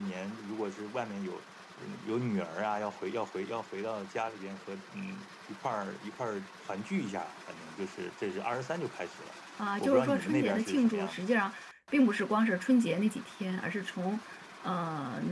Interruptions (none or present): present